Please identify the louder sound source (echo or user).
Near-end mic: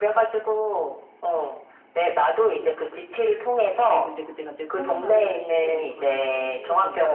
echo